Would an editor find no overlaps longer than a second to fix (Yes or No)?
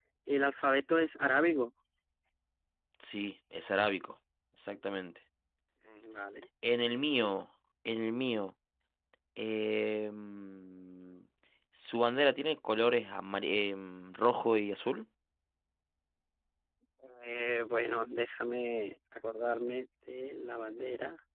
Yes